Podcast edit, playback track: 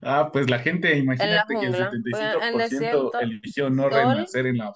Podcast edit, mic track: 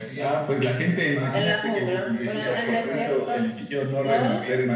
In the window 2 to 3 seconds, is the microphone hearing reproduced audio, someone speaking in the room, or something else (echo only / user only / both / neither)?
both